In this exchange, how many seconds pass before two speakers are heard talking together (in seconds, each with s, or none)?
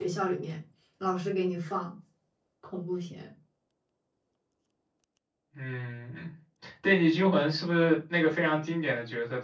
none